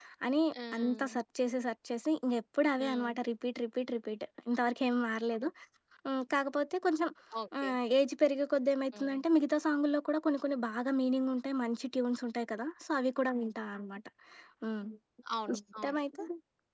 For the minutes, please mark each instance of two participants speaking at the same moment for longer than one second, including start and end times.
none

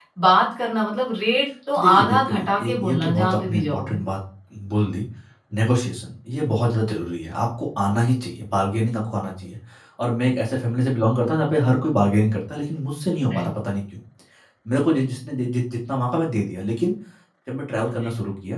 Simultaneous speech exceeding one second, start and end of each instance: 1.7-4.0

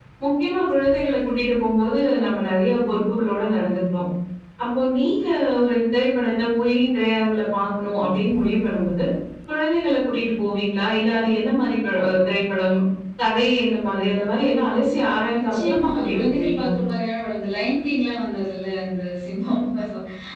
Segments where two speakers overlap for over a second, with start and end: 15.4-16.7

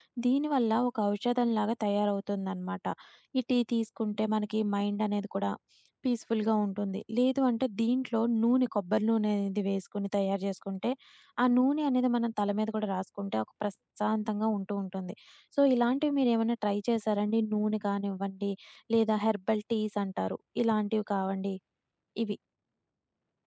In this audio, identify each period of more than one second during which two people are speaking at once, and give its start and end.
none

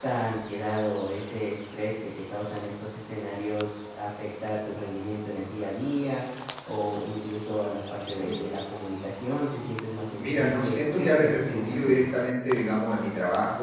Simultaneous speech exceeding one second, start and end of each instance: 10.2-12.0

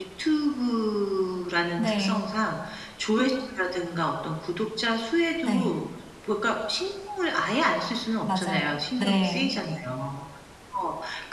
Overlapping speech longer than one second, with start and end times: 8.2-9.5

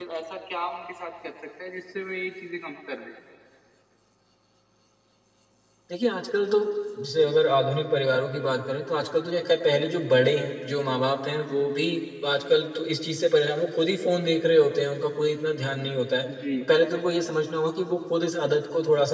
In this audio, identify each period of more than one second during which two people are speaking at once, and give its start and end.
none

